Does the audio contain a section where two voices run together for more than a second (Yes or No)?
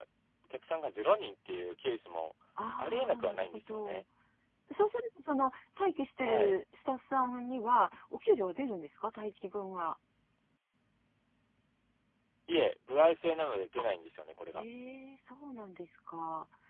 Yes